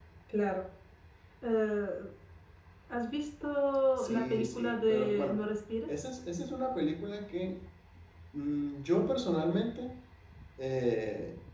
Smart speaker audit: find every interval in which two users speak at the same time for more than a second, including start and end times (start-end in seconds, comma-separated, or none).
4.0-5.4